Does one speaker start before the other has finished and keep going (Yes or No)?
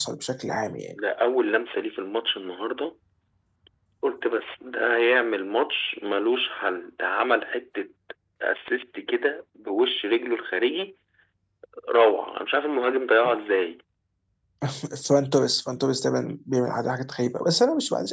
No